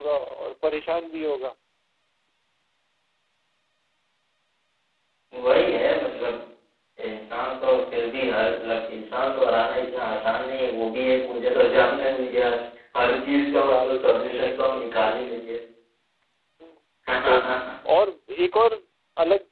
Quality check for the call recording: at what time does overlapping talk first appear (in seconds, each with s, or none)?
13.5 s